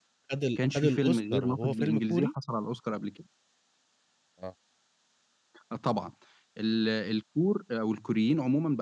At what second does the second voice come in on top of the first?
1 s

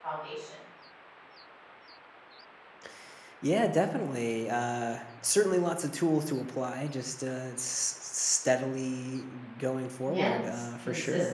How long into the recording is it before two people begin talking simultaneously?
10 s

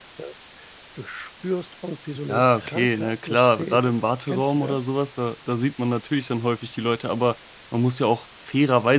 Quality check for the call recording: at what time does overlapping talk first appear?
2 s

